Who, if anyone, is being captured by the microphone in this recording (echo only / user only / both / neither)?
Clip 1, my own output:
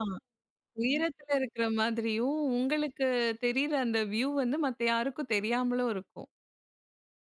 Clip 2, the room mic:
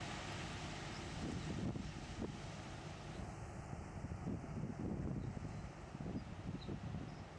neither